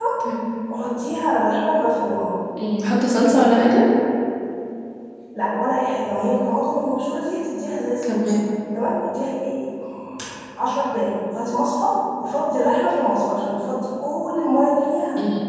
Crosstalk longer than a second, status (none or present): none